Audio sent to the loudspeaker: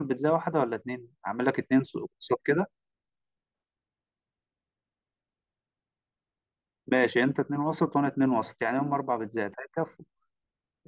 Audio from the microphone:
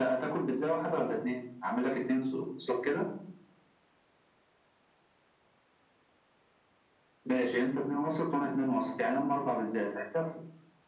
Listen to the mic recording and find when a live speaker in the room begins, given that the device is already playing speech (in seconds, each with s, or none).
none